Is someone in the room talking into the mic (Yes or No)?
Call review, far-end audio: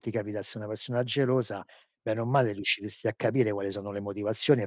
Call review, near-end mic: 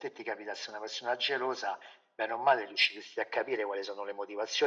No